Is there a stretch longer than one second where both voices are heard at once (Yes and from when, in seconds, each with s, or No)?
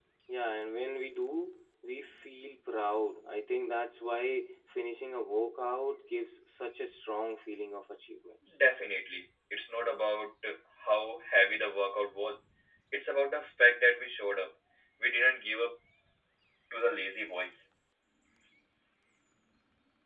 No